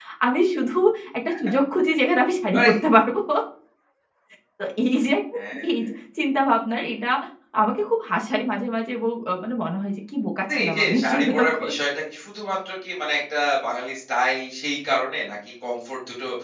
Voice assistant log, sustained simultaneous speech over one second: present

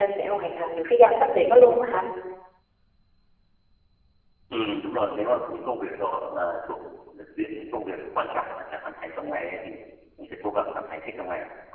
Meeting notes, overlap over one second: none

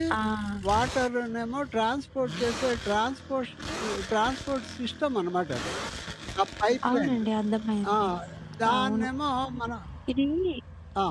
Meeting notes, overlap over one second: none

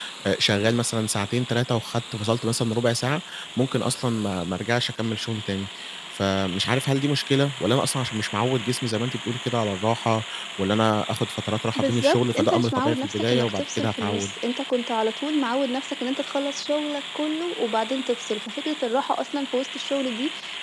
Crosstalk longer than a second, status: present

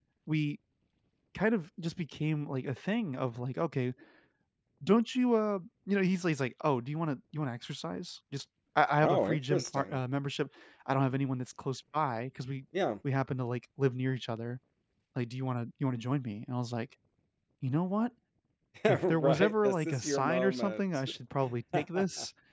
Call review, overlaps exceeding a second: present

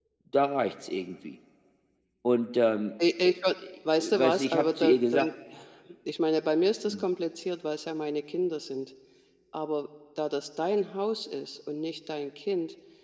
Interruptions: present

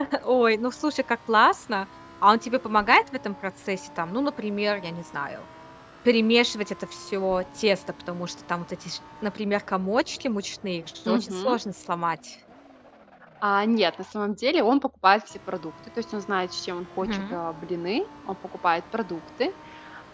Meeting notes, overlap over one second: none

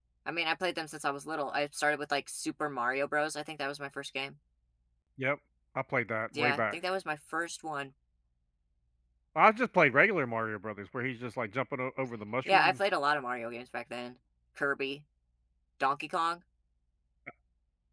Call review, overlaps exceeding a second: none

